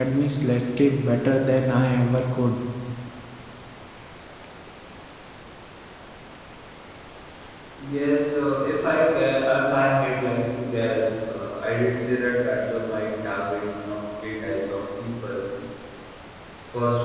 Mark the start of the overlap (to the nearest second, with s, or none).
none